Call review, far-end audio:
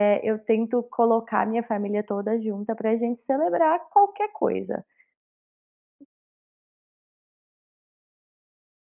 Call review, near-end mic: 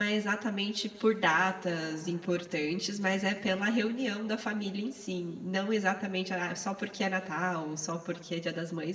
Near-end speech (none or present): present